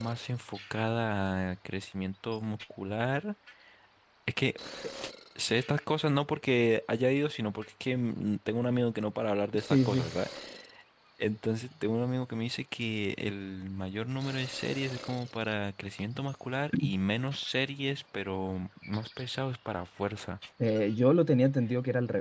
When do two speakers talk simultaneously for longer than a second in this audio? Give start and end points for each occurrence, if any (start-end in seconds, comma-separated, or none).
none